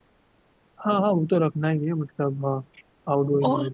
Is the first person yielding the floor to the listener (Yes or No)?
Yes